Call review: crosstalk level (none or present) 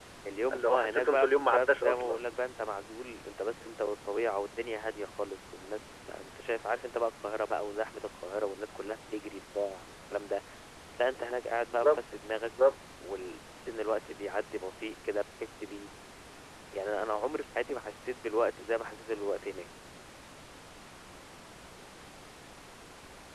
present